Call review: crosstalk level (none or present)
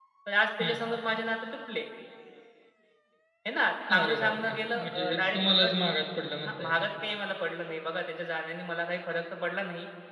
present